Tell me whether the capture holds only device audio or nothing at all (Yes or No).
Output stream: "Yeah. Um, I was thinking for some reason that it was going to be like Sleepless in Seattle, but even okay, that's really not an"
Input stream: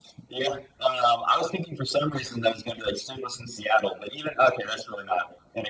Yes